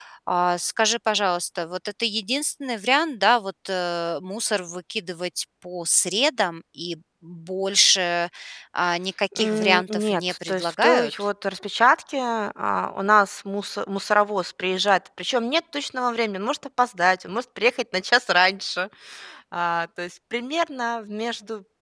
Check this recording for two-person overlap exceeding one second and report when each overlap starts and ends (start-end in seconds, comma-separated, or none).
9.4-11.3